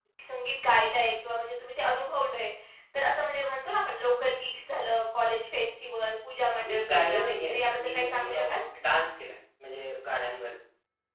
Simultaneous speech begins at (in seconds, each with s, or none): 6.5 s